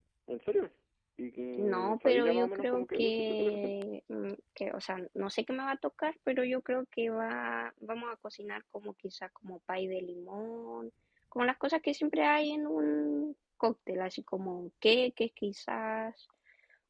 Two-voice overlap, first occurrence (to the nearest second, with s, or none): 2 s